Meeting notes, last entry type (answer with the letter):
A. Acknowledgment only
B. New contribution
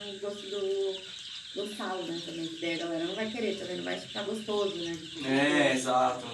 B